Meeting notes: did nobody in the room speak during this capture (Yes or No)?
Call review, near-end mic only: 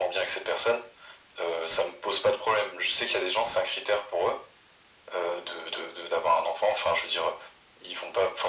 Yes